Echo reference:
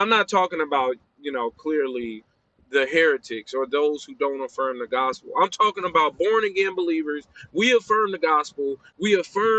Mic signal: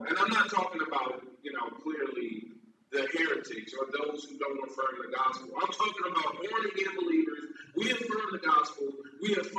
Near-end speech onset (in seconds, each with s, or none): none